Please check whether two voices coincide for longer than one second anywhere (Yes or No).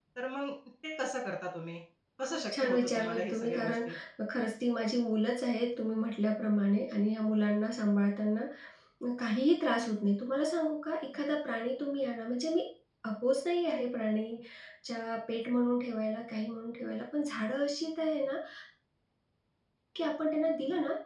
Yes